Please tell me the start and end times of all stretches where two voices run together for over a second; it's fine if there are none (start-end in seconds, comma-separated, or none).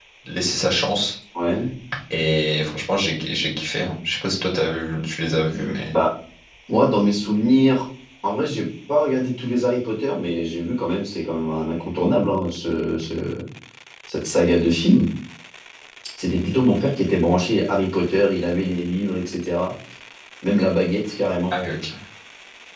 none